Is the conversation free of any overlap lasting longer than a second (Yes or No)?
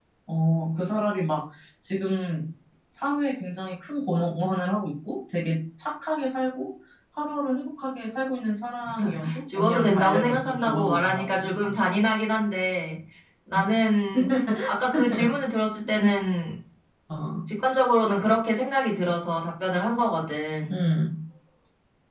No